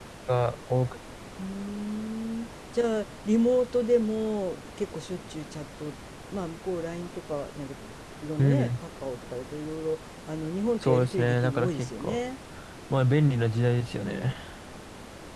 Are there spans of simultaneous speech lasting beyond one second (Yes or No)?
Yes